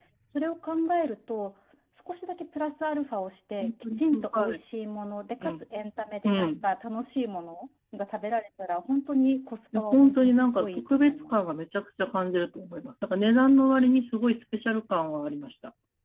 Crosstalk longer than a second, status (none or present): present